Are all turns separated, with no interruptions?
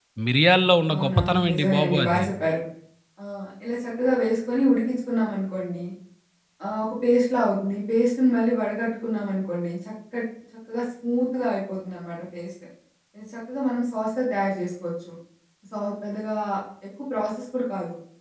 No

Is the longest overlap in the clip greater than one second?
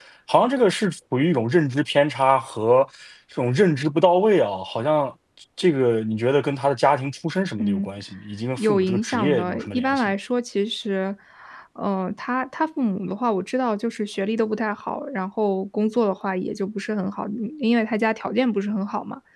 Yes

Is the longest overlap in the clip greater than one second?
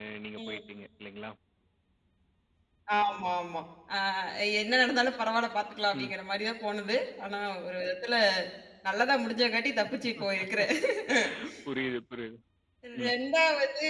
No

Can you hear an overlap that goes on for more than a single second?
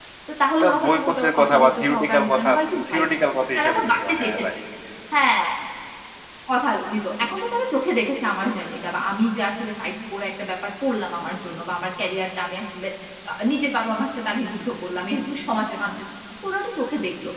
Yes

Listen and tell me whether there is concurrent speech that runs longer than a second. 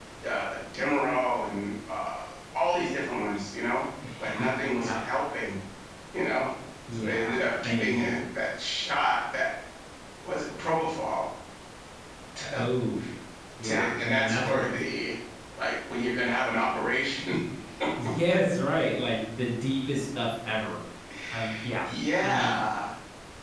Yes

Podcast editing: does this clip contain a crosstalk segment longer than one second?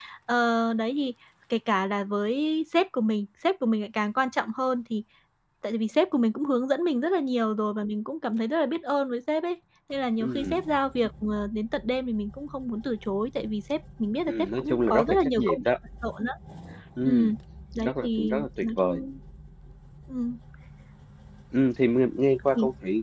Yes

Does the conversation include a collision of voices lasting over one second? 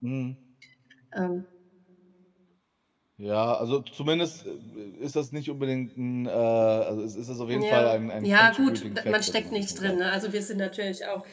Yes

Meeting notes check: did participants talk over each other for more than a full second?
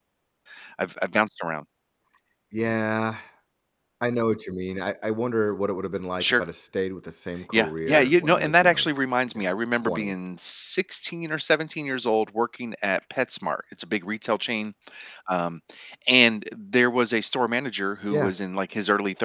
Yes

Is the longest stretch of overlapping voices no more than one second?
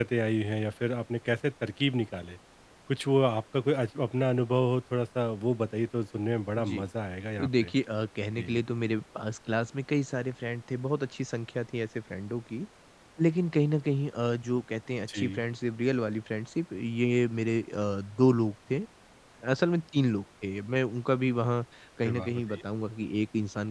Yes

